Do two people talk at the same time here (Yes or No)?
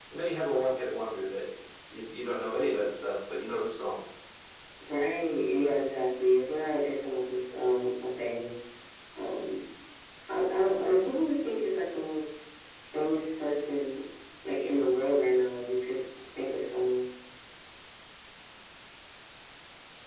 No